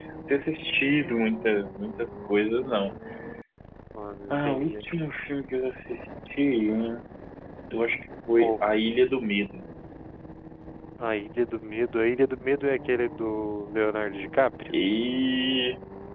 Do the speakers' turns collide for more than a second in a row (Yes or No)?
No